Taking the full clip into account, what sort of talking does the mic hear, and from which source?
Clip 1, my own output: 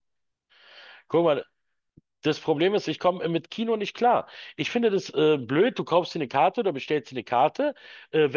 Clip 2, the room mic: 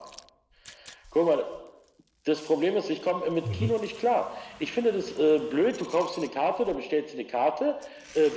both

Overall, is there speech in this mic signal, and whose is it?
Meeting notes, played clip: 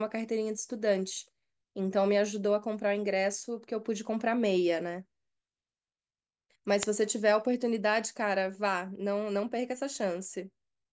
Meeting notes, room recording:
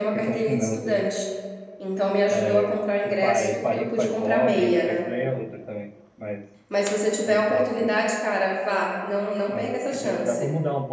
both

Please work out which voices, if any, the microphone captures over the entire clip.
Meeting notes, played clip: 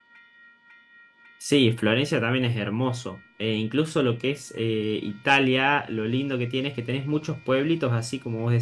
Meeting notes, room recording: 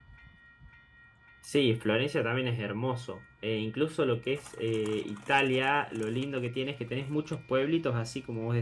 echo only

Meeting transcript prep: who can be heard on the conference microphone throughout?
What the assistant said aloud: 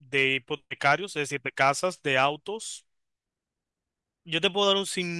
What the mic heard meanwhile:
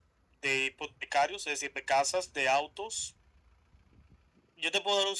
echo only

